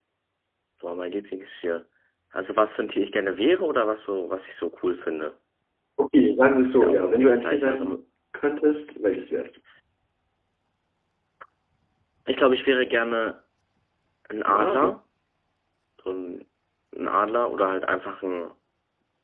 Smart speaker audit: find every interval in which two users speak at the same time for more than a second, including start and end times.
6.7-8.0

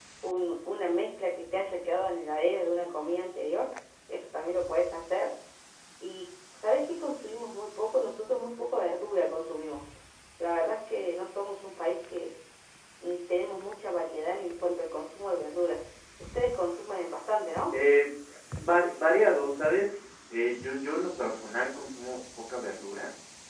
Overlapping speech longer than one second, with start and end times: none

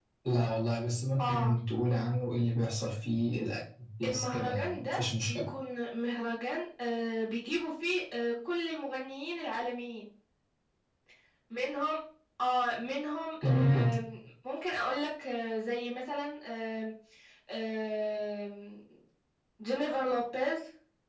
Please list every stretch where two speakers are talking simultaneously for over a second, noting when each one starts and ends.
4.0-5.5

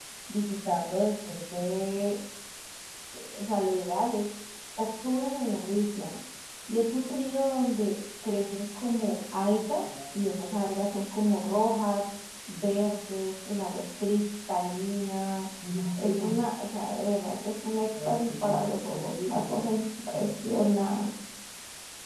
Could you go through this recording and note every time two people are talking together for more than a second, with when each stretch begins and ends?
17.9-19.6

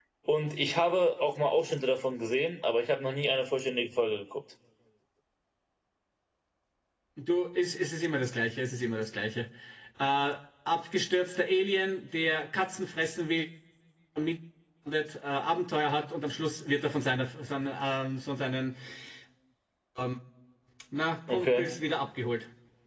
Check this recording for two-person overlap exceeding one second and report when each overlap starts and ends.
none

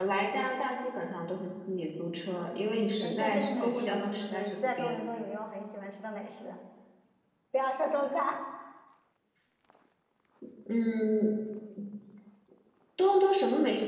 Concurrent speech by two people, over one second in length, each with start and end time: 3.0-5.1

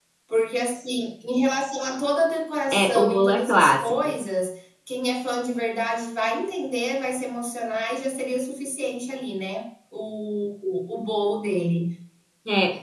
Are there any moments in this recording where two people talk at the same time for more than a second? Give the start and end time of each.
2.7-3.9

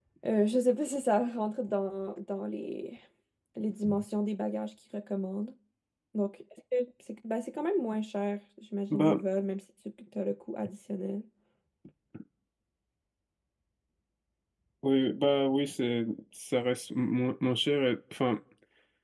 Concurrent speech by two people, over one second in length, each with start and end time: none

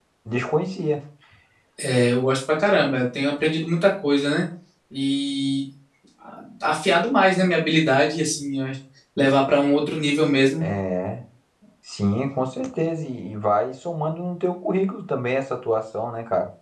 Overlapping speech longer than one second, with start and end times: none

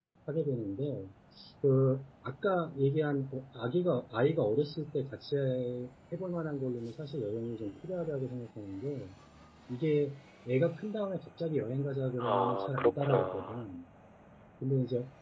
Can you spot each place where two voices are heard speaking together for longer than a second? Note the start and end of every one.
12.2-13.6

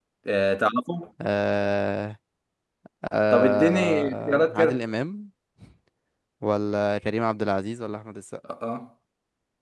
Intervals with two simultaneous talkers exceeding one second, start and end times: 3.3-4.8

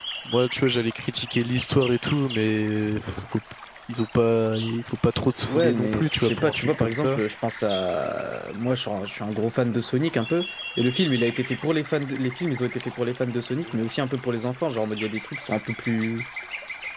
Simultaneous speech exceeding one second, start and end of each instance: 5.5-7.2

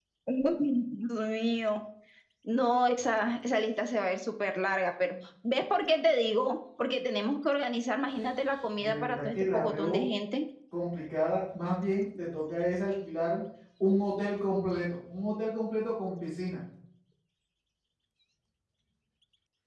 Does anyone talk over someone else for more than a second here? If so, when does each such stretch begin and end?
8.8-10.1

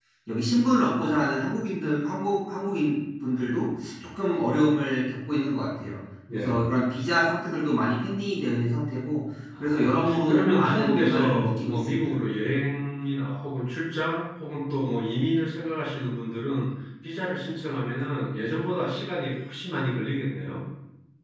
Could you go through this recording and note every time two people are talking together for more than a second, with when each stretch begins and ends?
9.6-12.0

